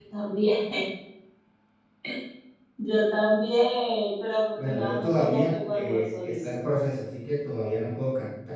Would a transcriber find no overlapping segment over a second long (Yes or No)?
No